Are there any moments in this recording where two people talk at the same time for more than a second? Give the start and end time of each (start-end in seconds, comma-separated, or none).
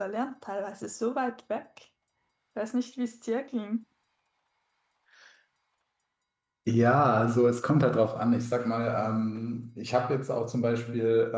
none